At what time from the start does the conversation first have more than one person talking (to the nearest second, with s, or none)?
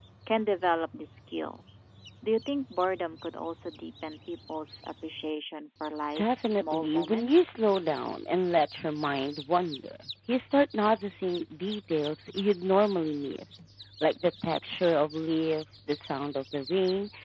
6 s